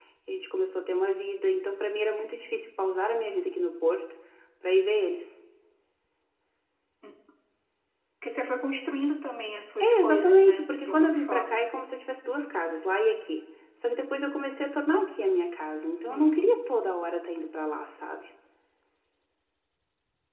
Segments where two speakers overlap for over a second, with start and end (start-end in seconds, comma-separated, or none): 9.8-11.7